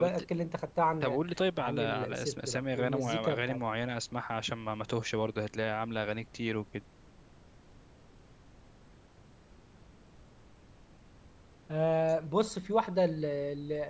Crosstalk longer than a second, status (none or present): present